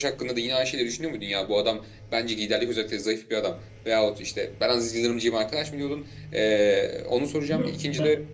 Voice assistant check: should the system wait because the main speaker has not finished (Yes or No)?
No